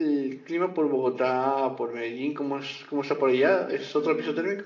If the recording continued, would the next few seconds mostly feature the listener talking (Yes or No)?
Yes